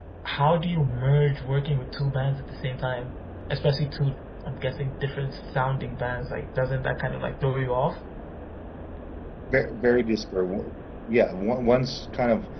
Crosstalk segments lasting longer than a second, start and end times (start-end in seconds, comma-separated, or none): none